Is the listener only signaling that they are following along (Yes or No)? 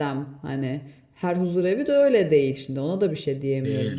No